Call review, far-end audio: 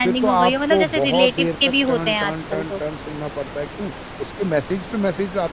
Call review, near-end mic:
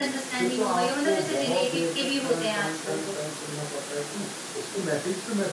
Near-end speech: none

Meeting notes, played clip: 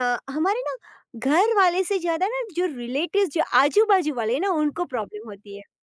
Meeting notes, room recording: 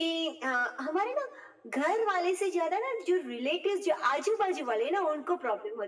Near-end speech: none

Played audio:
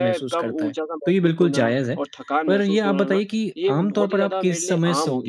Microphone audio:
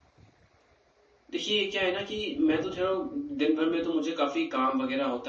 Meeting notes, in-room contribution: present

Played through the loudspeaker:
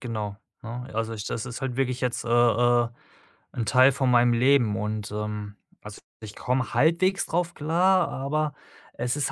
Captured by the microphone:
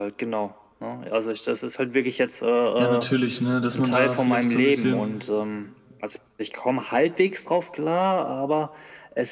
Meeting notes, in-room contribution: present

